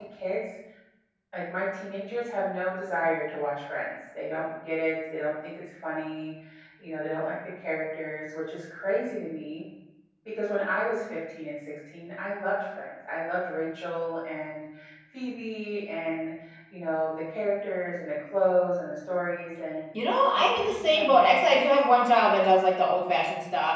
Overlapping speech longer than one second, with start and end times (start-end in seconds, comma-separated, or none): 20.3-21.6